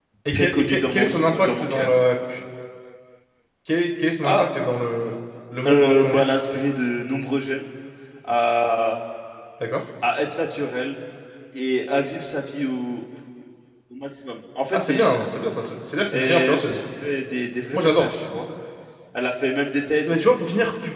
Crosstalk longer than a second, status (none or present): present